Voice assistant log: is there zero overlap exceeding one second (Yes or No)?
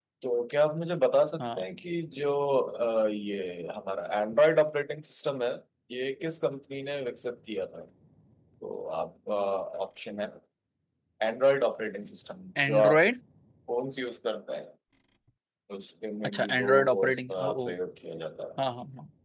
No